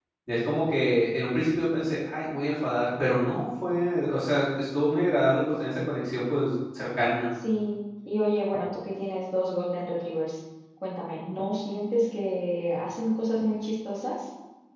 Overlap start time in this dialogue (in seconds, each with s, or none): none